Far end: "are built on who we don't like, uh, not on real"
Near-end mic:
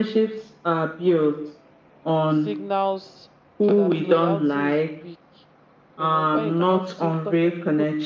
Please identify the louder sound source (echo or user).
echo